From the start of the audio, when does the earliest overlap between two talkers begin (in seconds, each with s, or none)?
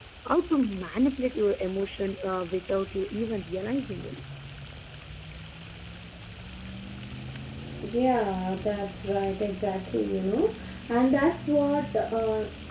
none